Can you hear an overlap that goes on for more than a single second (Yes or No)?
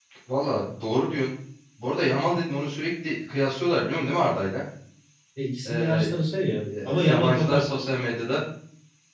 Yes